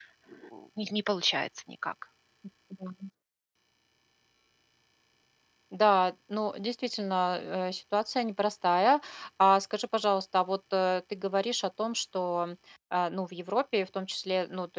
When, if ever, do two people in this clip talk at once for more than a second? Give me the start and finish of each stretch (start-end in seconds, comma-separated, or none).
none